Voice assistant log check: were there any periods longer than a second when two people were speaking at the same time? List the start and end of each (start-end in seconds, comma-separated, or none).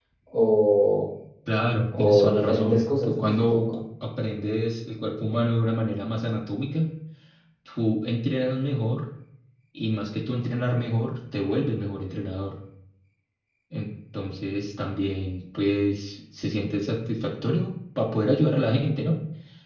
2.0-3.8